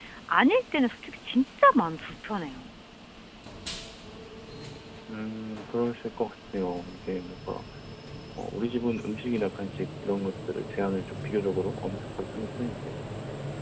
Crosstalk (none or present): none